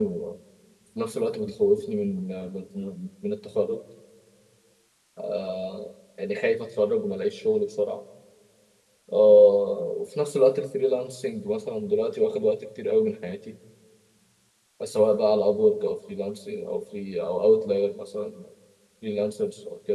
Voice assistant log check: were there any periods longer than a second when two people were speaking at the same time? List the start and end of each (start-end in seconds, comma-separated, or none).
none